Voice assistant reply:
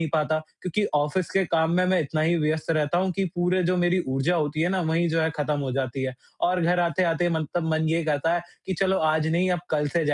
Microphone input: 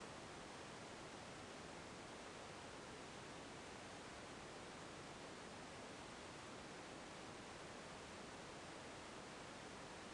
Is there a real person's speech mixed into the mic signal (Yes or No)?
No